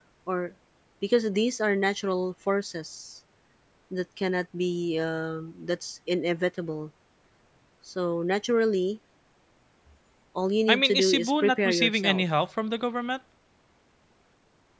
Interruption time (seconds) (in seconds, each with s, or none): 10.7 s